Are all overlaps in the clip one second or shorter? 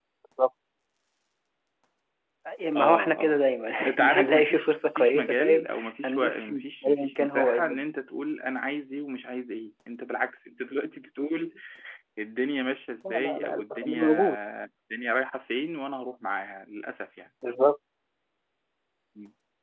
No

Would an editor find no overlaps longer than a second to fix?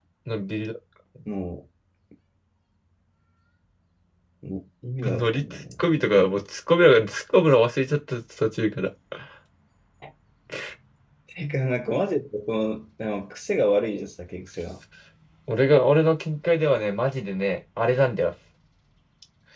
No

